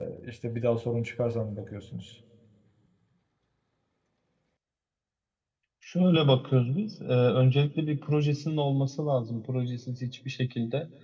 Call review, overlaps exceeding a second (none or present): none